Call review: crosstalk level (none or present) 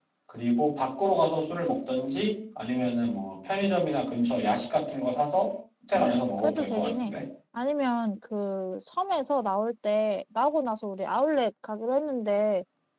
present